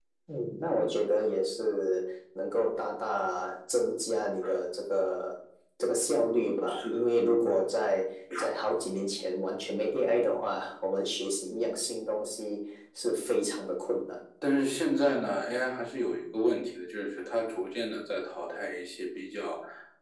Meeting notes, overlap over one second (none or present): none